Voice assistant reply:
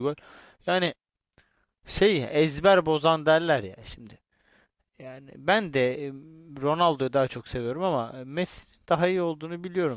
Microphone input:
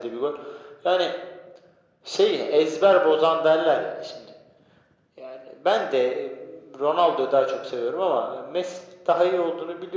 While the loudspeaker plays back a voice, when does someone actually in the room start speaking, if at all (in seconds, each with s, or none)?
none